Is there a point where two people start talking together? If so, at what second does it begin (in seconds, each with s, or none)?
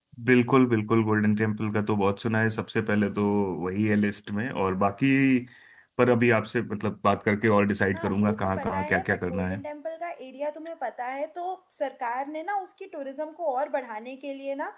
7.9 s